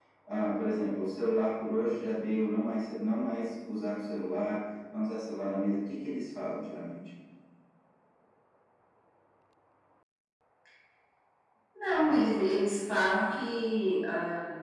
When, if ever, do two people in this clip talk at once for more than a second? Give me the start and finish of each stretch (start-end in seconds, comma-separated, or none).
none